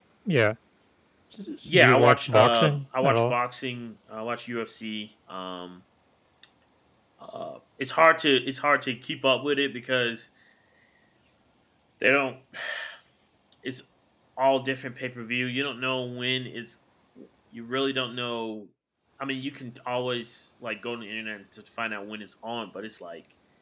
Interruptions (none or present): present